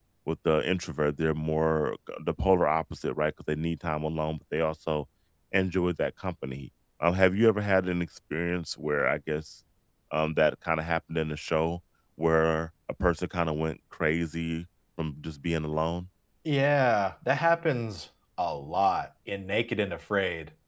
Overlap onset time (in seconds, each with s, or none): none